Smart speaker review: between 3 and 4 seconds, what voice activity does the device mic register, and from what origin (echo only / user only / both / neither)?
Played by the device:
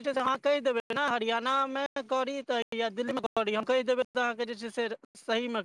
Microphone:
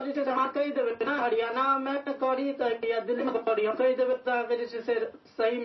echo only